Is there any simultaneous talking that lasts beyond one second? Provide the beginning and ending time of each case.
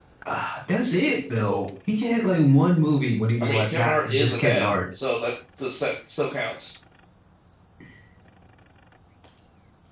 3.4-4.7

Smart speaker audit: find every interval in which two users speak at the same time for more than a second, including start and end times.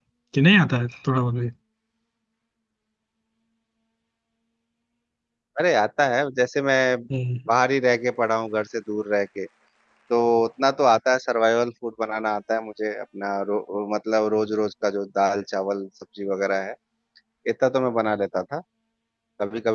none

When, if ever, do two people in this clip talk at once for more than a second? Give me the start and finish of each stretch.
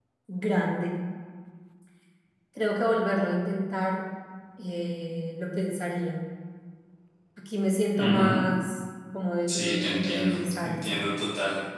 9.5-11.0

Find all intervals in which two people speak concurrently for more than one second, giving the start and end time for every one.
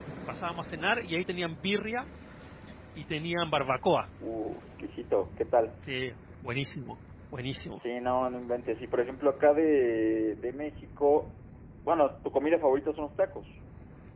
none

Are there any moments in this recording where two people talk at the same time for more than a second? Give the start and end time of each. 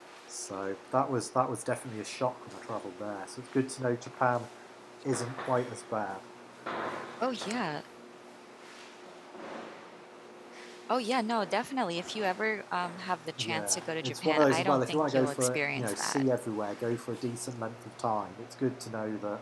13.4-16.2

